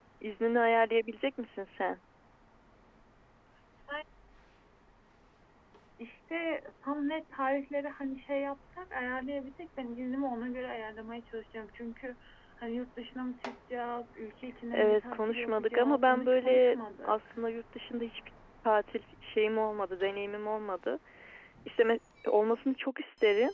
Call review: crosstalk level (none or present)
present